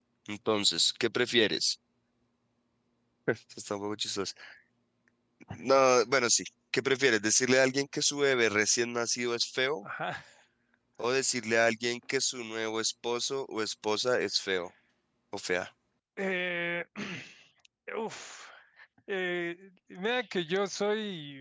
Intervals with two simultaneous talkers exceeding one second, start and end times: none

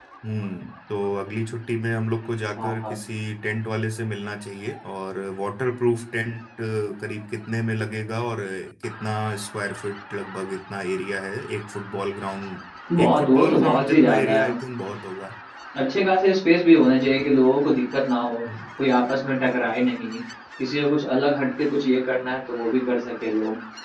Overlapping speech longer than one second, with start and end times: 13.0-14.5

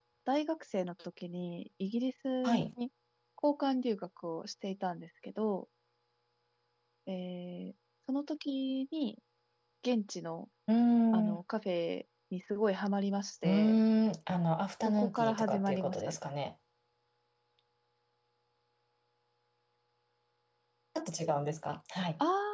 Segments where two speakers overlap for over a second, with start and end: 14.8-16.2

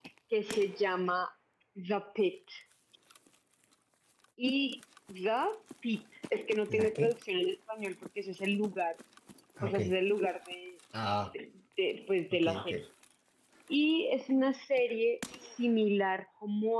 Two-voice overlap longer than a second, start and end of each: none

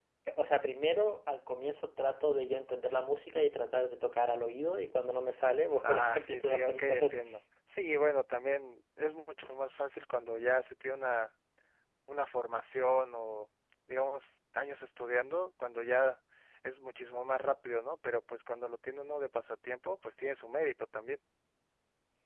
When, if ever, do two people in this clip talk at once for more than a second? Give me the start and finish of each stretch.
5.8-7.2

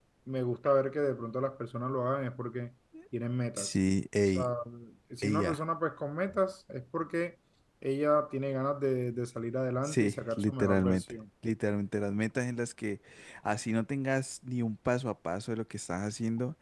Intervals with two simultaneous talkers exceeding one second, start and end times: 9.8-11.2

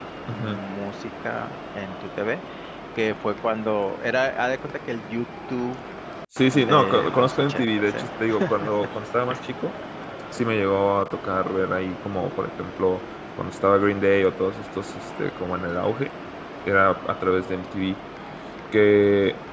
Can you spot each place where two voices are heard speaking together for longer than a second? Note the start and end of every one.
6.5-8.1

